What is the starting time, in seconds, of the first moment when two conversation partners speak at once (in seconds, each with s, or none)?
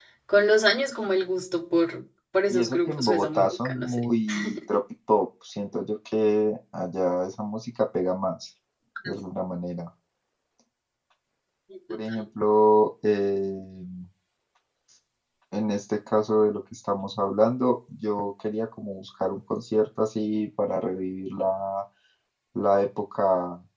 2.5 s